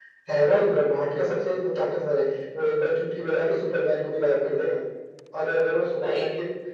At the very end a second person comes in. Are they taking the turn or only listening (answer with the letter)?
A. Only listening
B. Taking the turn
A